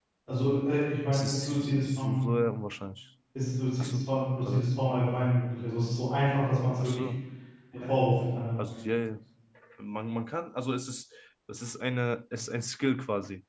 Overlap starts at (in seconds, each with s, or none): 1.1 s